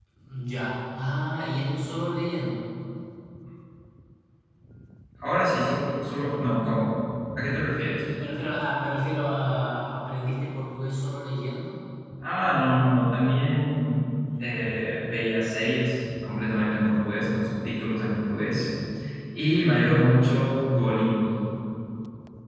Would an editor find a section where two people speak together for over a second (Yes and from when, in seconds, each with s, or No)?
No